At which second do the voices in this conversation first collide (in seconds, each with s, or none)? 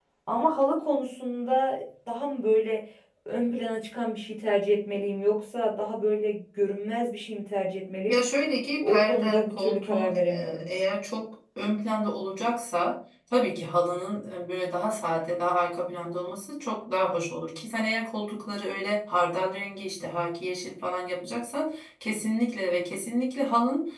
8.8 s